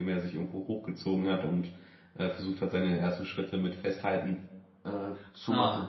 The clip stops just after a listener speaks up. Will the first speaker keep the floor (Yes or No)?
No